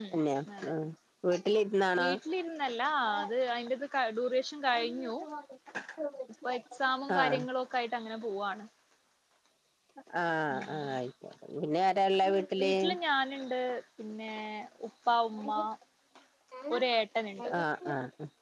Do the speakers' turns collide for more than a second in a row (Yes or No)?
No